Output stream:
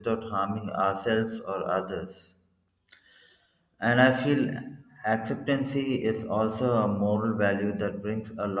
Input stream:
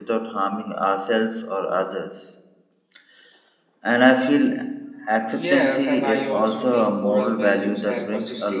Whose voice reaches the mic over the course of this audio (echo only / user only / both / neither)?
both